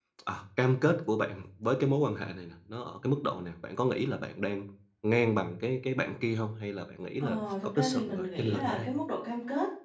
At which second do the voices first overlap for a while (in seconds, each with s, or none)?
7.2 s